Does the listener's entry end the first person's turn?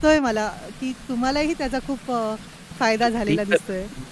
Yes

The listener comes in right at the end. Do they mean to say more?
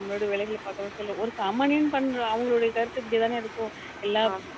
No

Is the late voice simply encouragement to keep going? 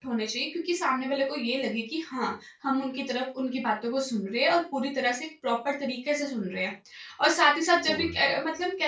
Yes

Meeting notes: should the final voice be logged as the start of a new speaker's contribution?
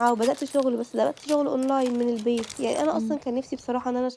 No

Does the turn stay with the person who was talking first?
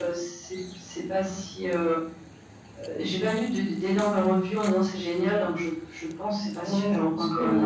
No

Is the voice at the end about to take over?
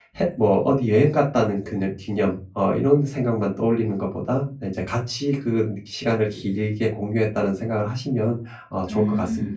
Yes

